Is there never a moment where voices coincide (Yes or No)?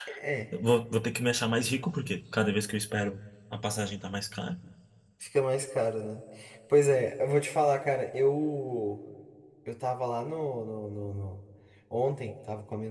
Yes